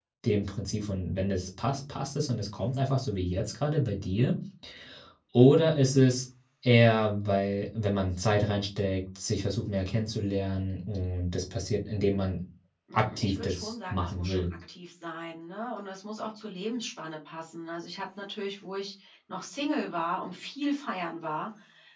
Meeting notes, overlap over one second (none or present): present